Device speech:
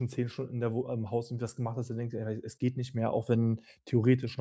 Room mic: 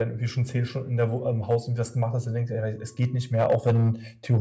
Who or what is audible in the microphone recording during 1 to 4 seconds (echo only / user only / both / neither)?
echo only